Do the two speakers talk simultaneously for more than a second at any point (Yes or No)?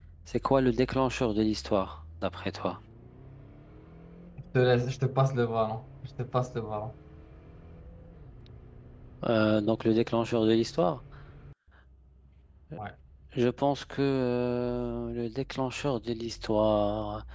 No